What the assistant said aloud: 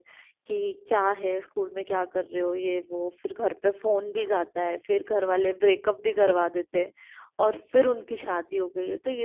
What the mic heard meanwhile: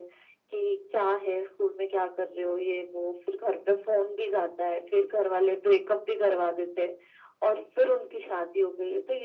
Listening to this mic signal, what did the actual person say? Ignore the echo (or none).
none